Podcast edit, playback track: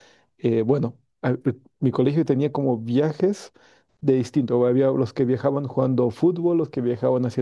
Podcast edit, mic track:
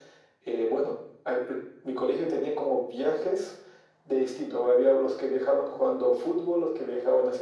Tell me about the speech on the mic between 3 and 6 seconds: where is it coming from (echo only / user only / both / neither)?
echo only